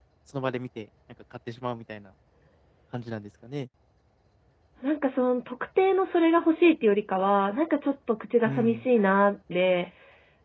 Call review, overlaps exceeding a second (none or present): none